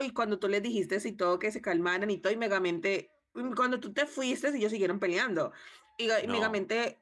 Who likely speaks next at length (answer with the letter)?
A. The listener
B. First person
B